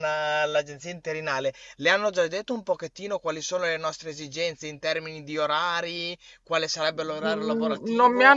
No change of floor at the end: No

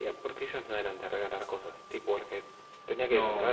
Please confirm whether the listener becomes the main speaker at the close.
Yes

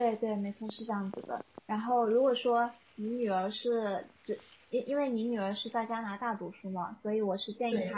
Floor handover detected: No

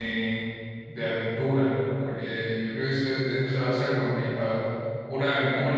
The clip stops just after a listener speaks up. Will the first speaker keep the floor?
Yes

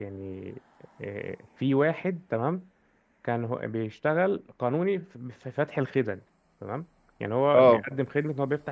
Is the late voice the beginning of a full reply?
No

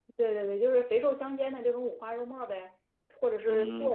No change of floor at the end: No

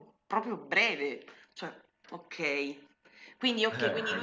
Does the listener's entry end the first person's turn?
No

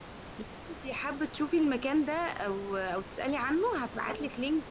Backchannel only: Yes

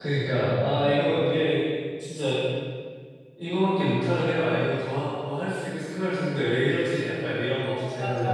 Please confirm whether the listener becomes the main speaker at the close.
Yes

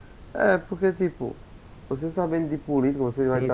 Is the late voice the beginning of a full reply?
Yes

